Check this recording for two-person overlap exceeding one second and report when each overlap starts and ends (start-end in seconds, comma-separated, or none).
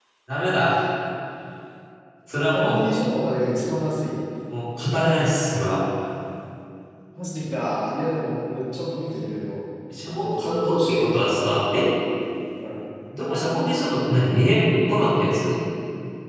10.2-11.4